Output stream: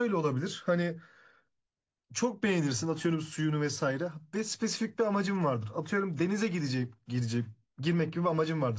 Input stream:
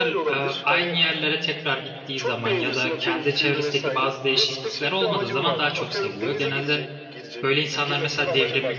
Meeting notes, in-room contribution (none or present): present